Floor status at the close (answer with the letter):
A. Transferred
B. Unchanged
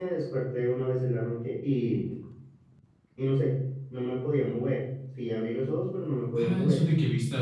A